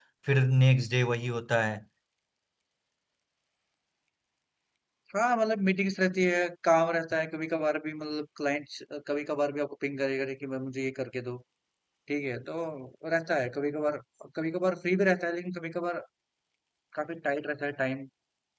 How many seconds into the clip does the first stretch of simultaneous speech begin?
none

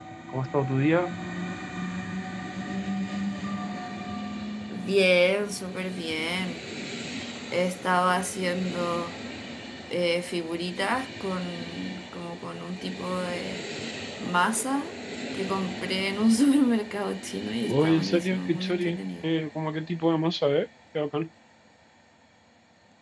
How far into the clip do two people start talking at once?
17.6 s

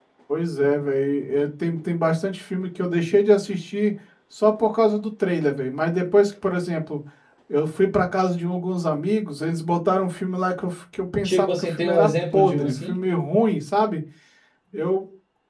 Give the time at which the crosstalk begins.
11.2 s

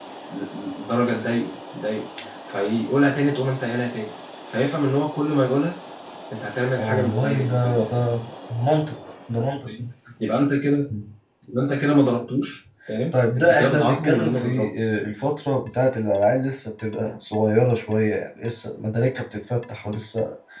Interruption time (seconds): 6.8 s

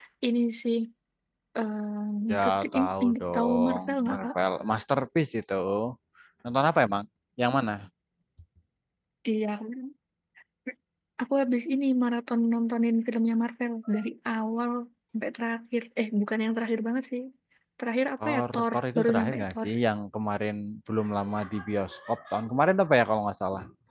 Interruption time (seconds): 2.3 s

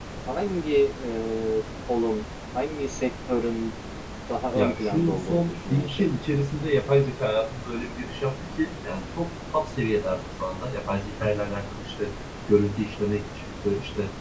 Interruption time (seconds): 4.6 s

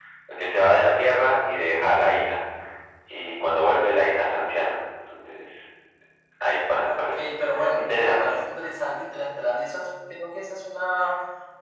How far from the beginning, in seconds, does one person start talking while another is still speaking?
6.8 s

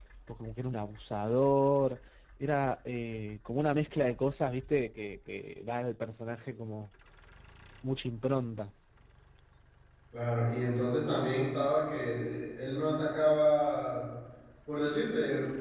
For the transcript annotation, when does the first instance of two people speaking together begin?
none

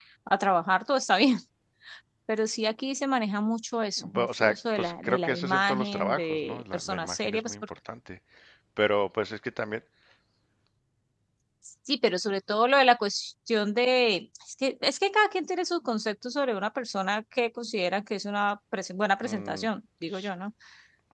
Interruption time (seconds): 4.1 s

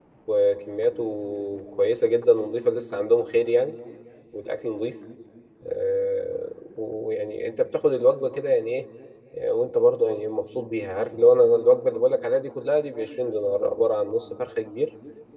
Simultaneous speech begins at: none

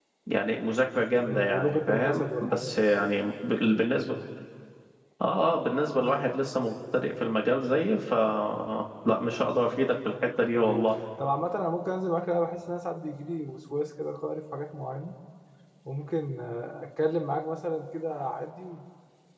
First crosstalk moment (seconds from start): 1.2 s

